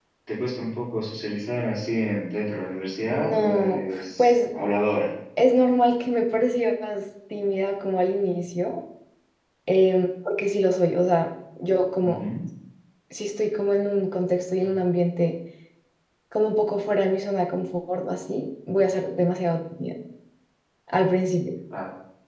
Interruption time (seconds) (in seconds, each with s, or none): 3.1 s